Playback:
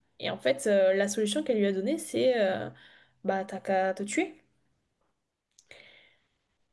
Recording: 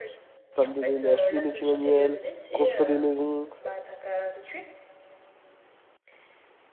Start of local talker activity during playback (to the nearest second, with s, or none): 1 s